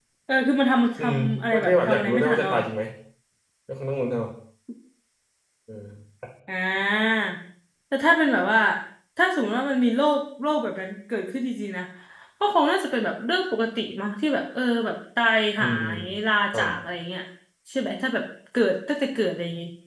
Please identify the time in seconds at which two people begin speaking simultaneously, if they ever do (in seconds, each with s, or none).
1.0 s